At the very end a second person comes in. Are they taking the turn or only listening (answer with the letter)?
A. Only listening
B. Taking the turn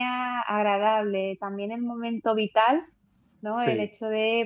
A